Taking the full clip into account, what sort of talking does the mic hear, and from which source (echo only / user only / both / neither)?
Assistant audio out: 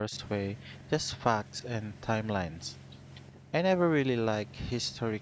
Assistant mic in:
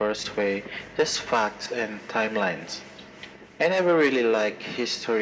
echo only